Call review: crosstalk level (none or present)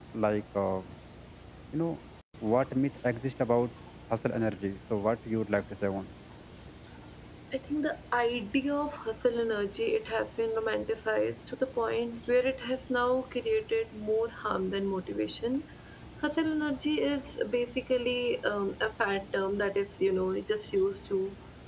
none